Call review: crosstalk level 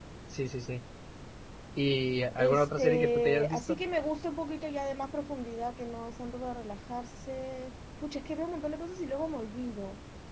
present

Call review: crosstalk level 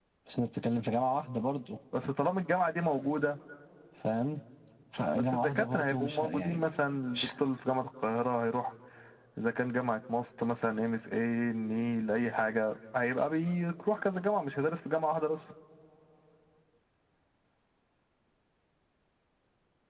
present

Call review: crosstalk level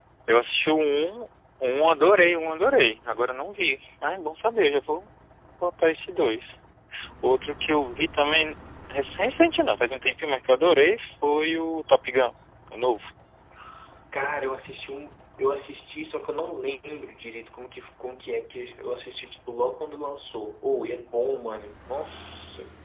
none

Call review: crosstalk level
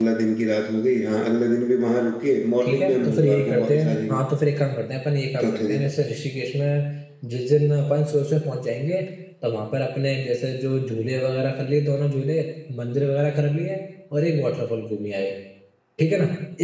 present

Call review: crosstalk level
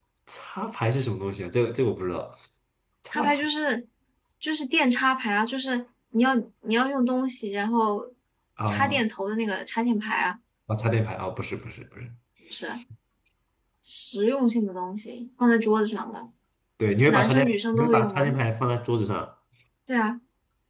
present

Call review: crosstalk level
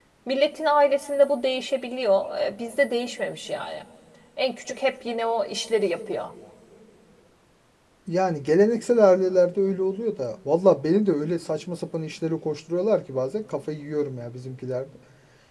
none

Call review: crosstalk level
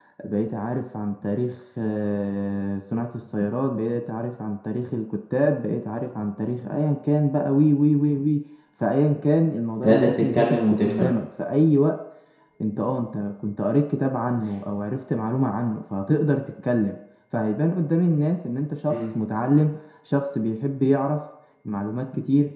present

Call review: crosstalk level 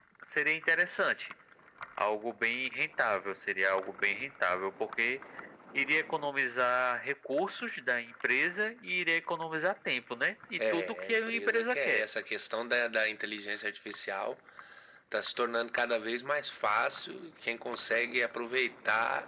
present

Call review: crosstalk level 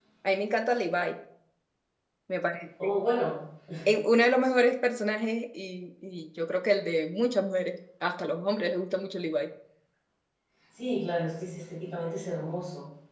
none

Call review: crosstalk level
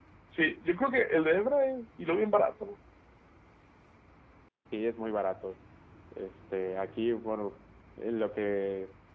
none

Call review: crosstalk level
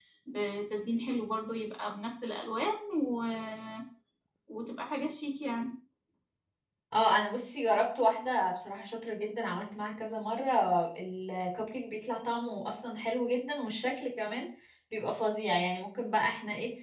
none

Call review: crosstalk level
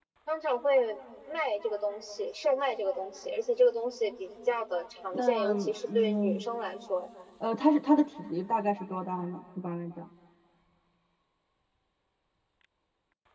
present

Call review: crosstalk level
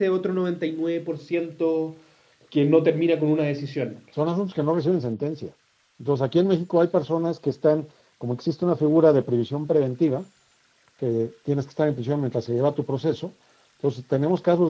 none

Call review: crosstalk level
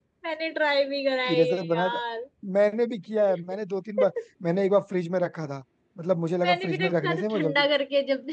present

